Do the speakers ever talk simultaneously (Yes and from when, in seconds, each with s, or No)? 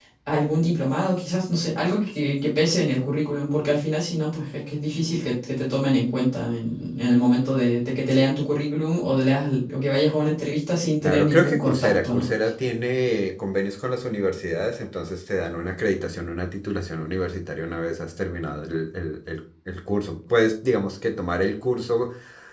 Yes, from 11.0 s